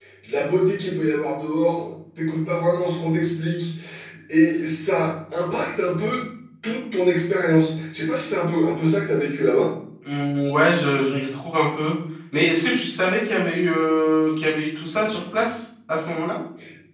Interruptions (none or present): none